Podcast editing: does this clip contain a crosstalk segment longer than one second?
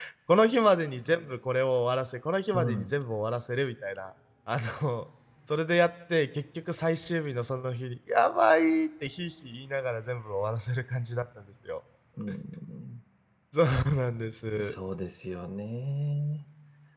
No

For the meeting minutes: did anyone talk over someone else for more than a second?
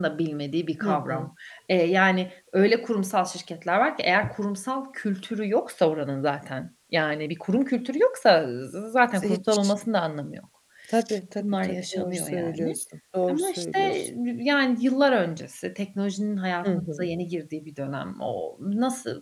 Yes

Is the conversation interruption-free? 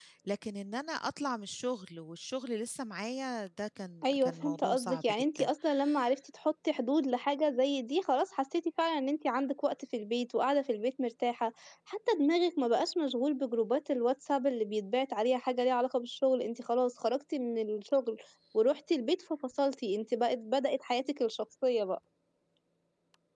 No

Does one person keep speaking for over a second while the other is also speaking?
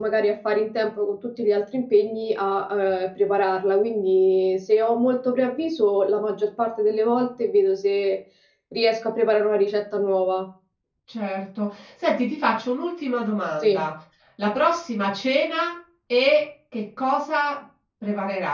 No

